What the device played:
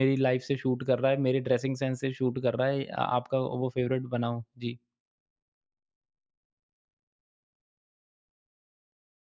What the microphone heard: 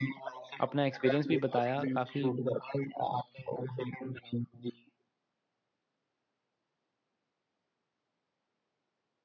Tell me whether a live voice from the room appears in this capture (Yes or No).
Yes